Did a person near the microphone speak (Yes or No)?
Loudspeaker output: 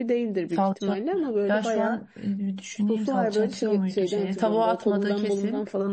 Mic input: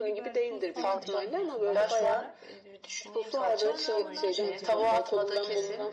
Yes